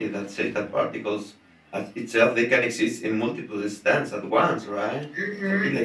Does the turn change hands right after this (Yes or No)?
Yes